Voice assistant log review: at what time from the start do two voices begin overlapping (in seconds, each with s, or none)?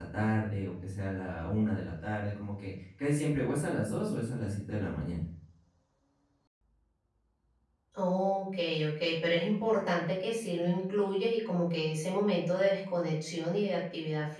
none